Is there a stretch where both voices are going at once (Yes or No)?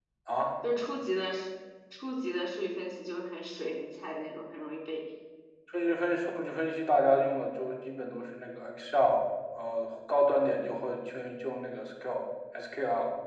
No